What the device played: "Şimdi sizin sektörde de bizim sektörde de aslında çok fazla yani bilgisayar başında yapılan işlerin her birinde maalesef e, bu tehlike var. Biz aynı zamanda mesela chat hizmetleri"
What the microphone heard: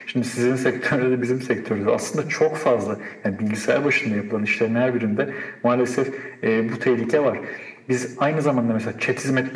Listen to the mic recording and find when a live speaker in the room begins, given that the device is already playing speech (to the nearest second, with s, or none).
none